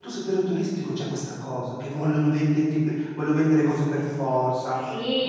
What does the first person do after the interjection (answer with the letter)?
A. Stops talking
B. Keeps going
A